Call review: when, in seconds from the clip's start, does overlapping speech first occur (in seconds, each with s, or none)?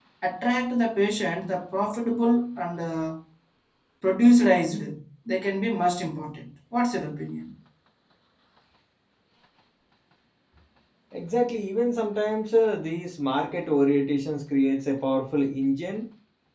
none